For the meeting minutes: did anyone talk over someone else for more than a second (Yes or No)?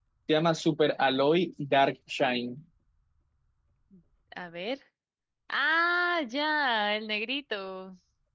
No